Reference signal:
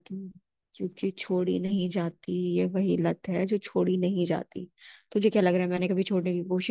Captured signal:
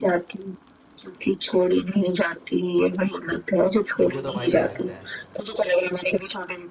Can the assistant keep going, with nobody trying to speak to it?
No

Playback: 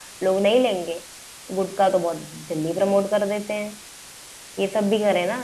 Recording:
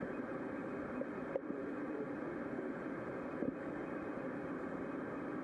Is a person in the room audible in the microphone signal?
No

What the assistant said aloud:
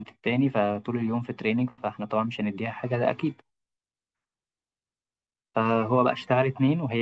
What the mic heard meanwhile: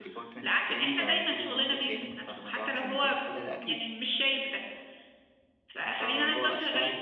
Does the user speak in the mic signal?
Yes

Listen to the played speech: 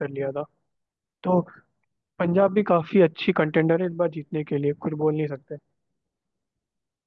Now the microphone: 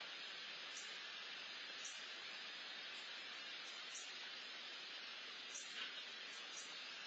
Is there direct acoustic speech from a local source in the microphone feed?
No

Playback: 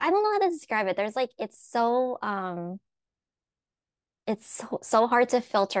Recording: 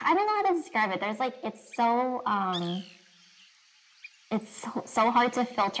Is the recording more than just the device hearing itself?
No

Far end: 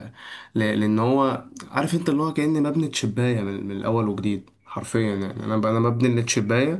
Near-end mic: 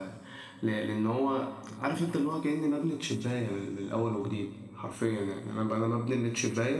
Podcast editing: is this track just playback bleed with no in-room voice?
Yes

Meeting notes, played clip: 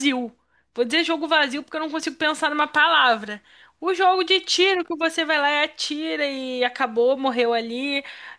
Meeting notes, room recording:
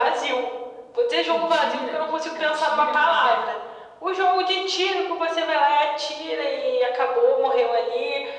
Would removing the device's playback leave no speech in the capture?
No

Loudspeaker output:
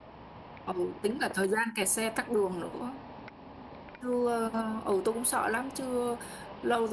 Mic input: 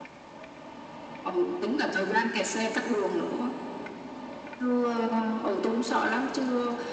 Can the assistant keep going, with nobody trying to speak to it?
Yes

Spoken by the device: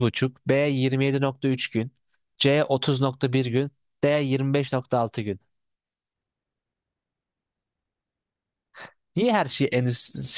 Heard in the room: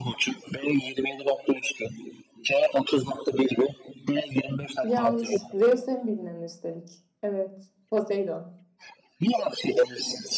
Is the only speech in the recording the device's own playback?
No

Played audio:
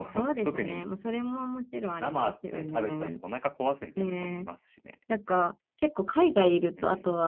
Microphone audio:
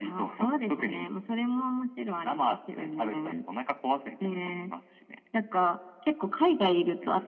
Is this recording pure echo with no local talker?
Yes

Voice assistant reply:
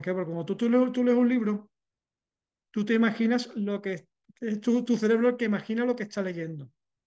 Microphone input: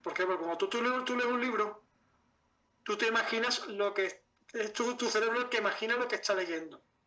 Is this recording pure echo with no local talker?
Yes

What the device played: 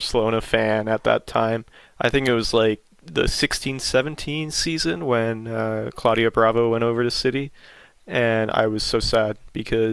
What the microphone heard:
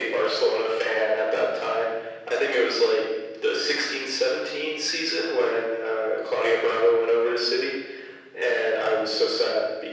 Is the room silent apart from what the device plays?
Yes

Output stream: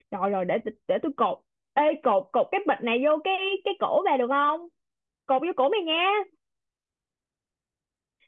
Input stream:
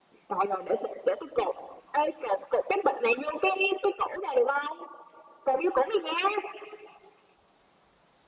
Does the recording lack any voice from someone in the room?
Yes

